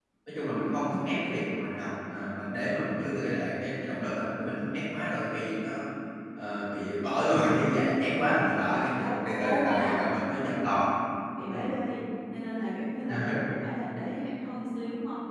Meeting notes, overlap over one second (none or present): present